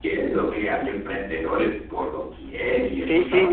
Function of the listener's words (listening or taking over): taking over